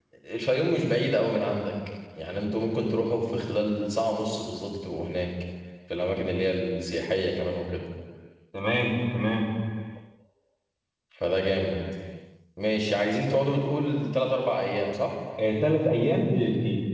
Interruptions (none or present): none